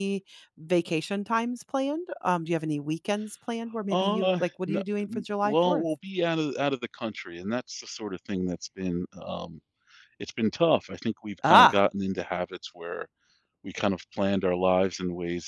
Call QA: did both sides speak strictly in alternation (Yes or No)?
No